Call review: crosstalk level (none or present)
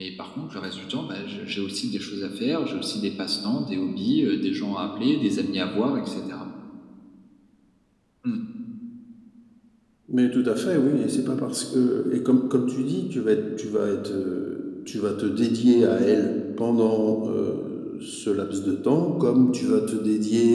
none